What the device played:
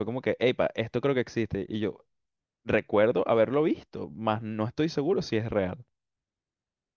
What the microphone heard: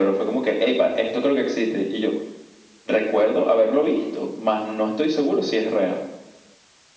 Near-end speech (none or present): none